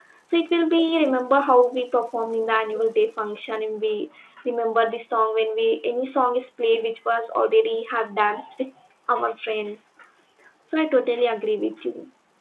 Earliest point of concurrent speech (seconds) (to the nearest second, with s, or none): none